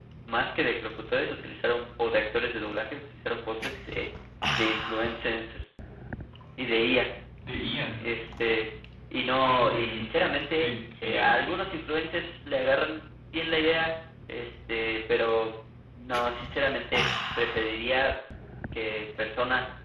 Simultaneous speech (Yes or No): Yes